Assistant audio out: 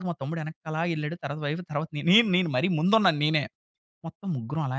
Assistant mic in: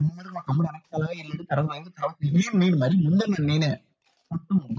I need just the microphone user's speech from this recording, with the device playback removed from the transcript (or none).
none